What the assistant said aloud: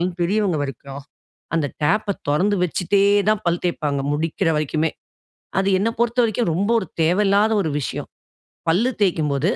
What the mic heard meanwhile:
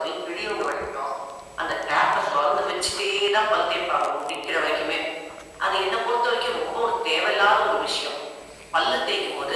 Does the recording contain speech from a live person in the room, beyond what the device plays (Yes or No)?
No